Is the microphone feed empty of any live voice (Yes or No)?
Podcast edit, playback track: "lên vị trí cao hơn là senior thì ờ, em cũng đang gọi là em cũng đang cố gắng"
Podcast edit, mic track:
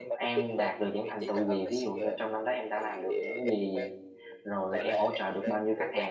No